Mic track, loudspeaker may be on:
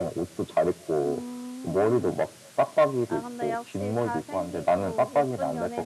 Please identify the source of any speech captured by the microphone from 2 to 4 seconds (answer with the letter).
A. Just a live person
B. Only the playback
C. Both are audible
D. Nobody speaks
C